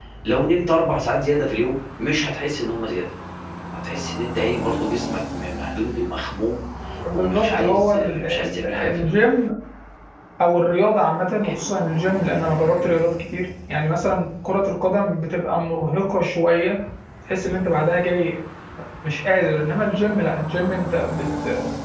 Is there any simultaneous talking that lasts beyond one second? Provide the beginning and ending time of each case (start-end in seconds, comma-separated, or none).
7.1-9.2